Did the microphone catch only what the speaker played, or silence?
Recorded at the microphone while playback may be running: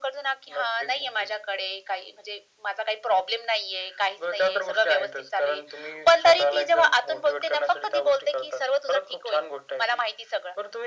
Yes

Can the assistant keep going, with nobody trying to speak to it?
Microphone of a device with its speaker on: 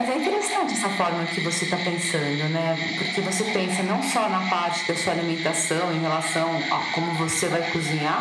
Yes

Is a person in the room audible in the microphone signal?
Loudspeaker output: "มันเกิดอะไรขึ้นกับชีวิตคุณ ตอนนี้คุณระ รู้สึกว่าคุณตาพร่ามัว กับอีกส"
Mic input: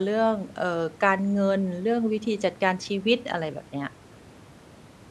Yes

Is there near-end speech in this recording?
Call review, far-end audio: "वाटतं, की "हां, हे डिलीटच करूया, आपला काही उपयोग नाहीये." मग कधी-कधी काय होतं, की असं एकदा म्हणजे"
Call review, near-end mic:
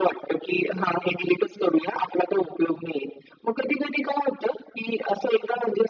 No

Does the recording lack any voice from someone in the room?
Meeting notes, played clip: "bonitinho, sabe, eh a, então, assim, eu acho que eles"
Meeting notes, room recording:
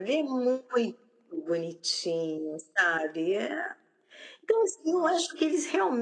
Yes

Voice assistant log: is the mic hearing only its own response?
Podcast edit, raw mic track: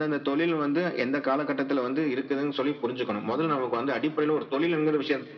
Yes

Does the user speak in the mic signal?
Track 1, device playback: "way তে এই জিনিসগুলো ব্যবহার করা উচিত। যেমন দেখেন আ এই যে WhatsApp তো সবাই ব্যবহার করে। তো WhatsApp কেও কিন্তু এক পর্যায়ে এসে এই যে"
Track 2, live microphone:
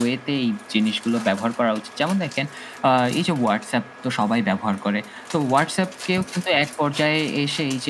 No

